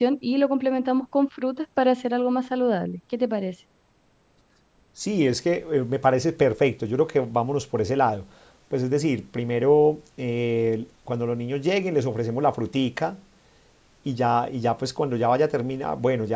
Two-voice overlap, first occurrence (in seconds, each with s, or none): none